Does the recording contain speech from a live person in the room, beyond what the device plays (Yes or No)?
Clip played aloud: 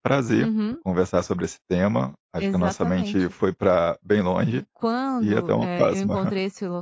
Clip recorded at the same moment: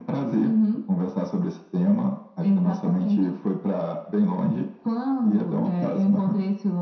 No